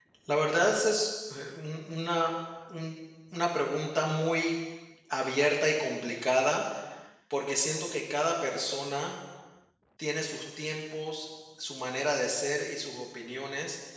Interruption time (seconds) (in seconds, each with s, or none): none